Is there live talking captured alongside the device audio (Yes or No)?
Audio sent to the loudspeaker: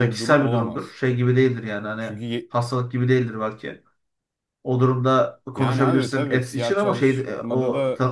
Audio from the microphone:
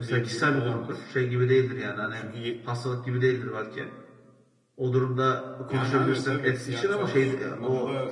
No